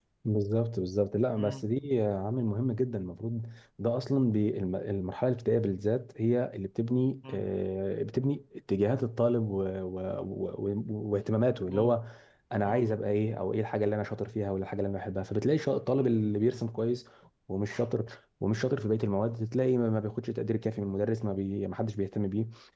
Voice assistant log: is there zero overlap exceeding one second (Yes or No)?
Yes